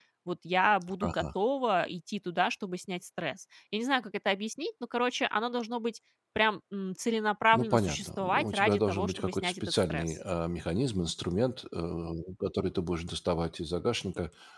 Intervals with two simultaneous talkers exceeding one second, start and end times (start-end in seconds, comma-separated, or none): 7.5-10.2